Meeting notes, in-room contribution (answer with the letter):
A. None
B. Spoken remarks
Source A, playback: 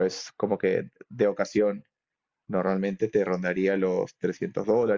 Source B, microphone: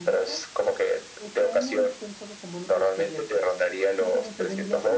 B